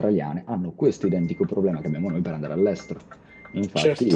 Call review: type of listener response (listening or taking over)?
listening